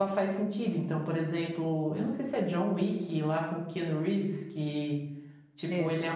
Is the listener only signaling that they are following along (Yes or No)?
Yes